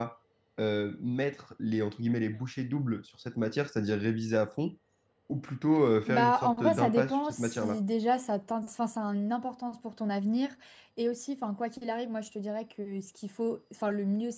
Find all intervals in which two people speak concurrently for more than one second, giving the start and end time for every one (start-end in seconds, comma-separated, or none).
6.1-7.8